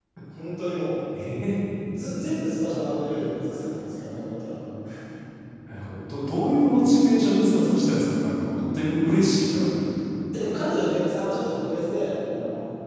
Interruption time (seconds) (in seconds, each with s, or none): none